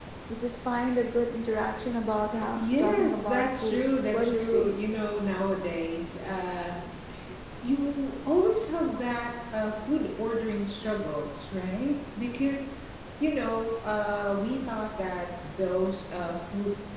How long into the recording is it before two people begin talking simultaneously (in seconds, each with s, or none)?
2.3 s